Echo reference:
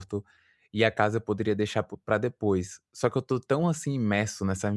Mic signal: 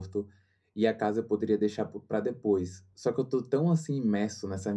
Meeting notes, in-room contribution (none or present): none